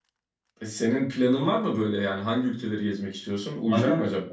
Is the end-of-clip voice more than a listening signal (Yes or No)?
Yes